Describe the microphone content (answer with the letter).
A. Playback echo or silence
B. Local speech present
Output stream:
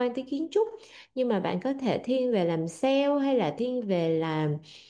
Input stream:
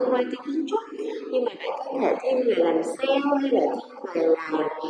A